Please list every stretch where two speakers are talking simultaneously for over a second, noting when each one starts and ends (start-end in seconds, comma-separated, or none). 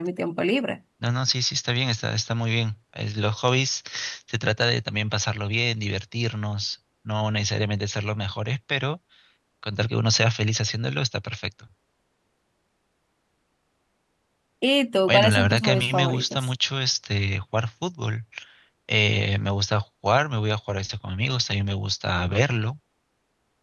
15.1-16.5